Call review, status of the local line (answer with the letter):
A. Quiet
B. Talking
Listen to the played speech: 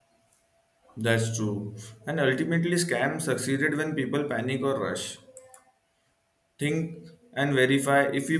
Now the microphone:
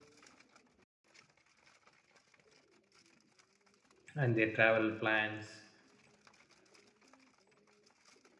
B